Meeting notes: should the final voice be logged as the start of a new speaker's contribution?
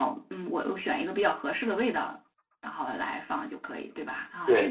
Yes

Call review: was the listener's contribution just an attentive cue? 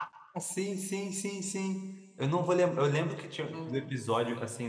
Yes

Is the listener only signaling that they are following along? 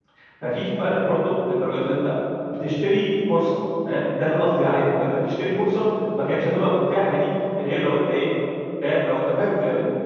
No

